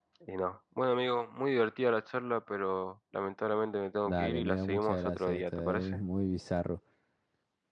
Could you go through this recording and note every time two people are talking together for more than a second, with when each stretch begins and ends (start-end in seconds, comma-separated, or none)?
4.0-6.0